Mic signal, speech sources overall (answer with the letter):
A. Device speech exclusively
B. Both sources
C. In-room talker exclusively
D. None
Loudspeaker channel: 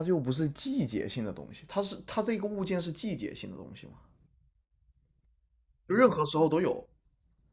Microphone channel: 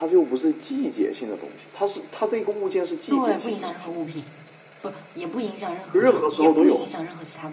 B